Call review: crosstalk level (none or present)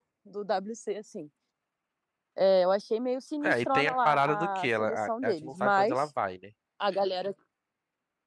present